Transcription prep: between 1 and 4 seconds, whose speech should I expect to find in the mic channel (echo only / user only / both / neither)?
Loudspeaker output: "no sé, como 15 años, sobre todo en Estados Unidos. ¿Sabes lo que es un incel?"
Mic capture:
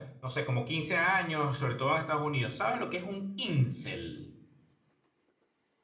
echo only